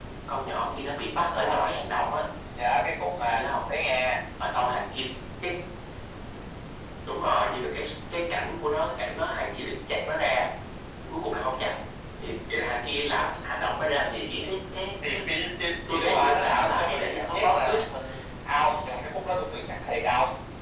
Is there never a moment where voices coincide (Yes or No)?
No